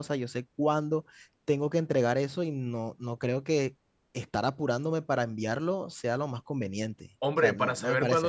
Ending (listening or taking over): taking over